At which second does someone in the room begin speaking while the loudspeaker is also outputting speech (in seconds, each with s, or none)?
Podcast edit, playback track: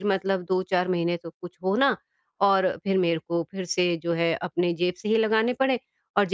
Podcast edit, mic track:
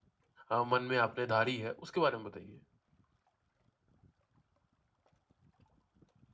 0.5 s